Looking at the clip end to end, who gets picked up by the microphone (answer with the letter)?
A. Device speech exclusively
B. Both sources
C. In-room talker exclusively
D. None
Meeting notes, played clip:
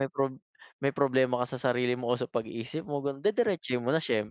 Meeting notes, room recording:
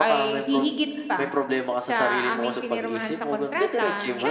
B